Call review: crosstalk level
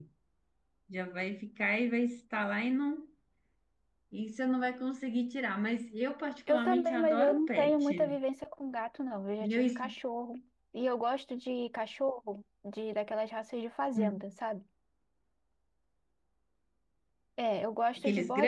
present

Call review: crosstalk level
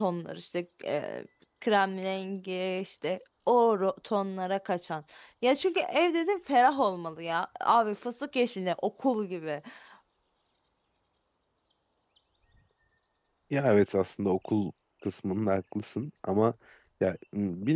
none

